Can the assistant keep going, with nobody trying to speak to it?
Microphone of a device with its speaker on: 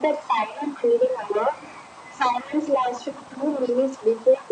Yes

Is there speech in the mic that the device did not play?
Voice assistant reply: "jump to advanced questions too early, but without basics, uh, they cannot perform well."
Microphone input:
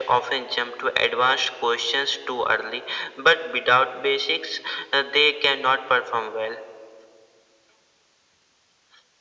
No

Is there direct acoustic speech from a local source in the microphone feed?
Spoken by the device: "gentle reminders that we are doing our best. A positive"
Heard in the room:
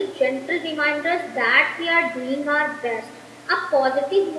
No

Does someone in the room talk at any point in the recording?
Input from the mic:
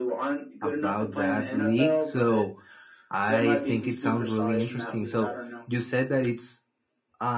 Yes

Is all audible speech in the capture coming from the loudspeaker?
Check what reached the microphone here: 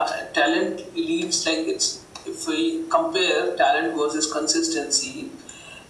Yes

